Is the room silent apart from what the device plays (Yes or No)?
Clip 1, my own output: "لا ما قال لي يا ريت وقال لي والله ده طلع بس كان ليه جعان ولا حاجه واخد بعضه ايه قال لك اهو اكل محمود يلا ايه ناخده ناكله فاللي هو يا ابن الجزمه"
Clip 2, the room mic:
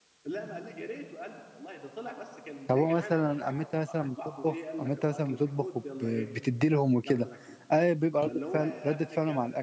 No